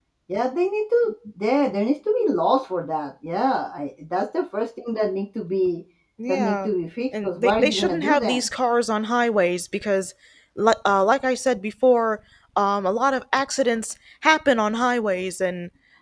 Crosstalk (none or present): present